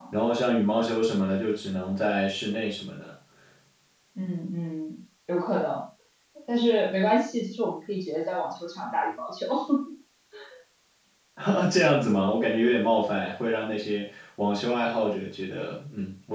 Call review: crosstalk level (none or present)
none